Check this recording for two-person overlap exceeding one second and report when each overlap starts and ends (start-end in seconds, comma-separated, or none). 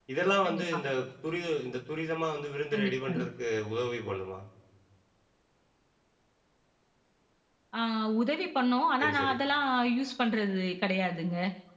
none